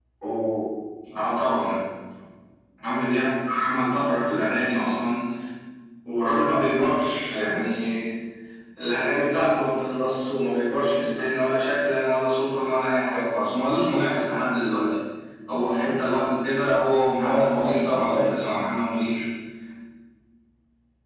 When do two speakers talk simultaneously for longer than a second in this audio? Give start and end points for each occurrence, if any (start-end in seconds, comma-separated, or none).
17.2-18.4